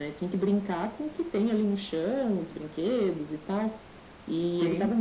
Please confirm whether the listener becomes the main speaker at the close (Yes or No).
No